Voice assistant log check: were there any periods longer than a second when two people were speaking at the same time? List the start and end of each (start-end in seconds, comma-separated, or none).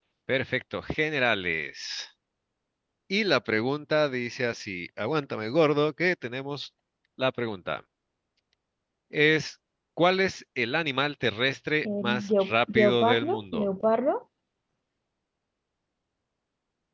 11.8-13.7